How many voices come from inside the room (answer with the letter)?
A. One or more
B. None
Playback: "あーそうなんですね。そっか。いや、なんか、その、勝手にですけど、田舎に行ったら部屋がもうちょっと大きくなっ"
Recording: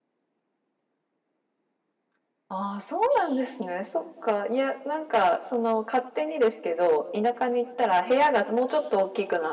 B